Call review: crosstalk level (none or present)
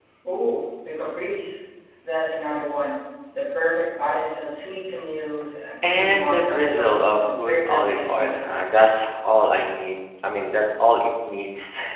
present